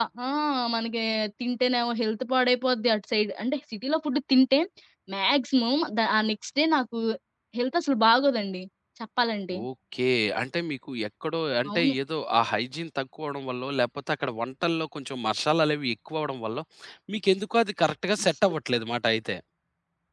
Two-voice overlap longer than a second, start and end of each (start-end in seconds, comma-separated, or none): none